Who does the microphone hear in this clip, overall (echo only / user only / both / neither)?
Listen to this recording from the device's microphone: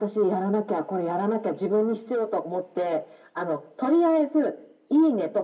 echo only